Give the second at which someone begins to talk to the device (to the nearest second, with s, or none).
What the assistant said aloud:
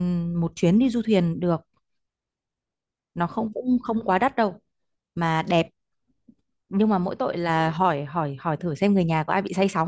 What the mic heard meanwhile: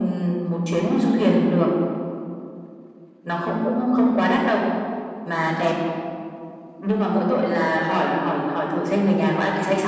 none